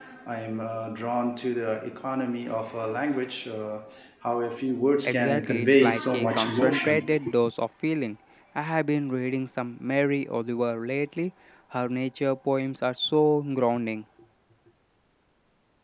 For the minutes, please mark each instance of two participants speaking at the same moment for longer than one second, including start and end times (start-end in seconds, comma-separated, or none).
5.0-7.3